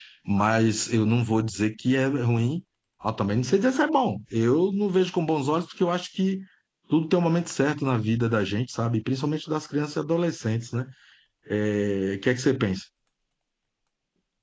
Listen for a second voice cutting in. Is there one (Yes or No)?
No